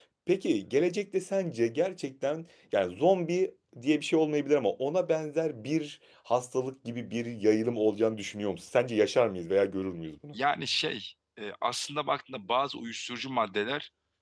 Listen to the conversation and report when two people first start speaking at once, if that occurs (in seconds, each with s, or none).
none